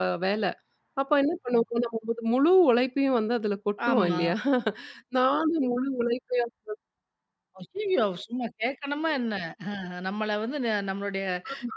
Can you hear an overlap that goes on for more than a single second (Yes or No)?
No